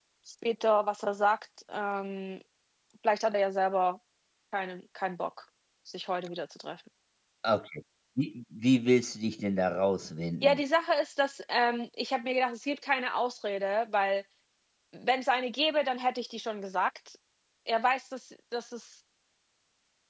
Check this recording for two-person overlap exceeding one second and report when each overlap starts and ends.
none

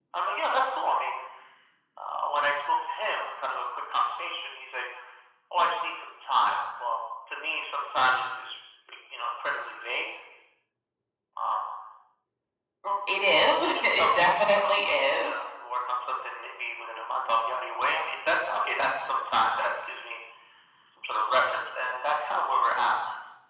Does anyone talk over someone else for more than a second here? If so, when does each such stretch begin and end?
13.6-15.4

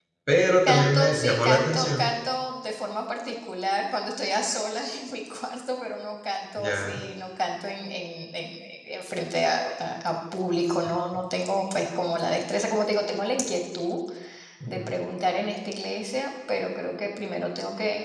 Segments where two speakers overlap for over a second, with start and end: 0.7-2.1

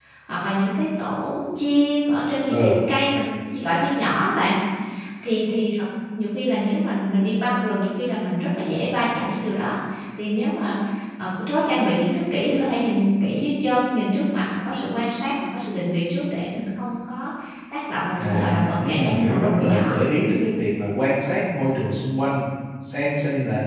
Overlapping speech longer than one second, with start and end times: 18.1-19.9

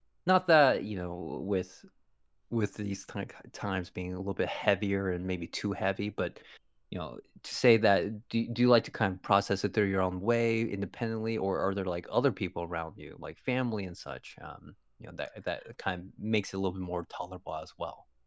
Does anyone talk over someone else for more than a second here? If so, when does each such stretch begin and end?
none

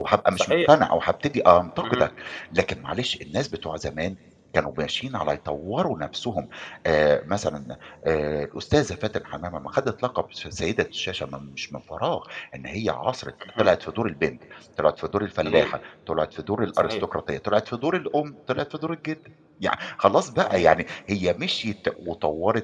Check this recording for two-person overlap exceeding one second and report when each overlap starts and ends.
none

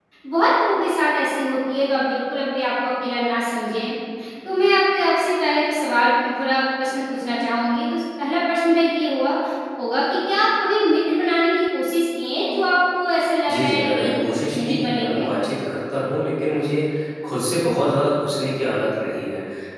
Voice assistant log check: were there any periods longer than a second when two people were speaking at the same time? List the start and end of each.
13.5-15.2

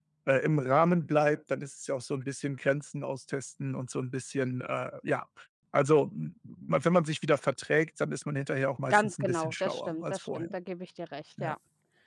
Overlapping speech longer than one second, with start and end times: 8.9-10.5

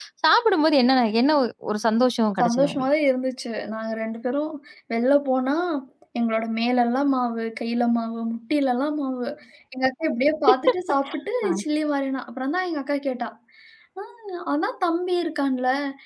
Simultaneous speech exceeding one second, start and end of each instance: none

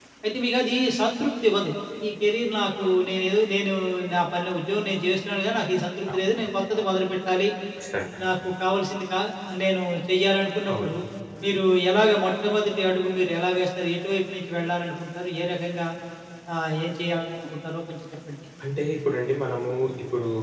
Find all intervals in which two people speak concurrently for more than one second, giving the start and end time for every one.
none

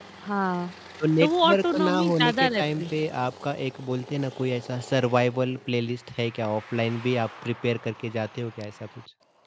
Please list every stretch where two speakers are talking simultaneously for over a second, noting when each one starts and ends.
1.2-2.8

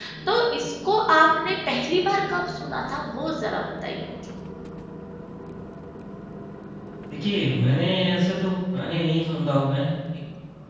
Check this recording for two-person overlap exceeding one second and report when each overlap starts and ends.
none

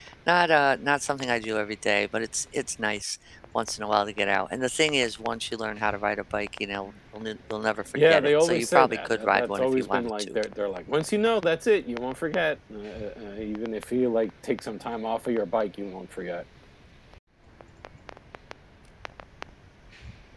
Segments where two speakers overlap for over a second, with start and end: 8.0-10.3

